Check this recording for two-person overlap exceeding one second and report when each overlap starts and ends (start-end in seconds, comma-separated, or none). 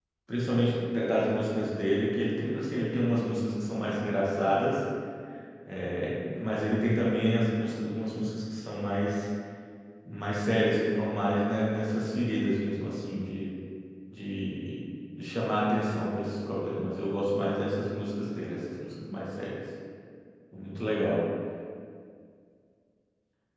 none